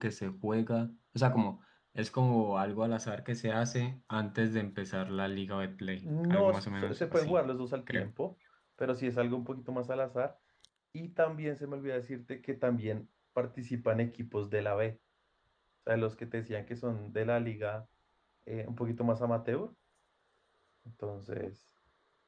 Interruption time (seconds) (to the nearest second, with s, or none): 6 s